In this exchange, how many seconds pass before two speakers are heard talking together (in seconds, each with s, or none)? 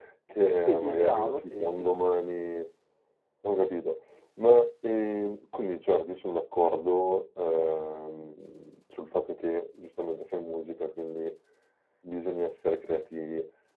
0.6 s